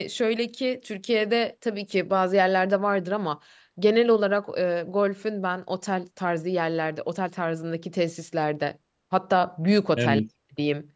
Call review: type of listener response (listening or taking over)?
listening